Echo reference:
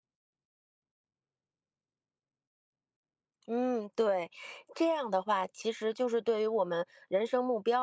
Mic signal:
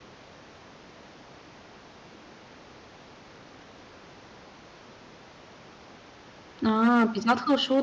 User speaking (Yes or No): Yes